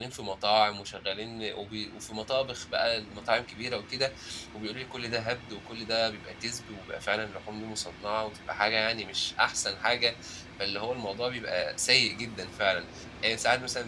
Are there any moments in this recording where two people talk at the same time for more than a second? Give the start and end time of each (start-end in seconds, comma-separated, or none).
none